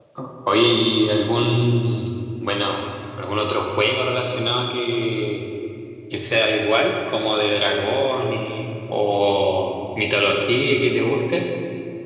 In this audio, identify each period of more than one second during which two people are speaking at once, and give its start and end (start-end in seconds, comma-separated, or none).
none